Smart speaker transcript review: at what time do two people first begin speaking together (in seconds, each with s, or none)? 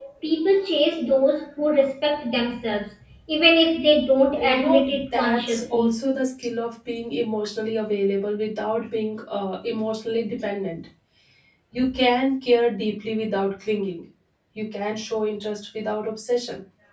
4.3 s